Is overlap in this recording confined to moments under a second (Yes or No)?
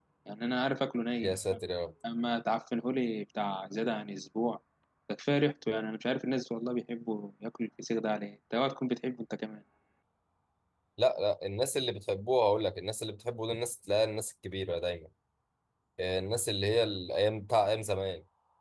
Yes